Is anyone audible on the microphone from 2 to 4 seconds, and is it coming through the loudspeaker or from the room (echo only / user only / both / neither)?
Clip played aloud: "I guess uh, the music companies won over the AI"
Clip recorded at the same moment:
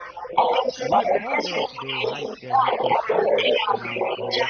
both